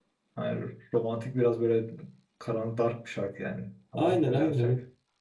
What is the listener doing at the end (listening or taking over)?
taking over